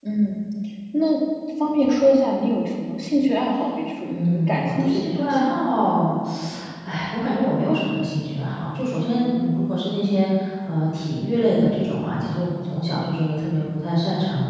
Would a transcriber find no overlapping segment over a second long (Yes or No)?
No